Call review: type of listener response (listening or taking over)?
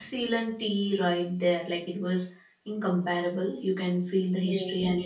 listening